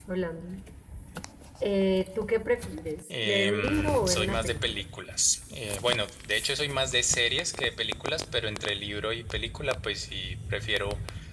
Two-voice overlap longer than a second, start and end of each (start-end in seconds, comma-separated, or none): 3.1-4.6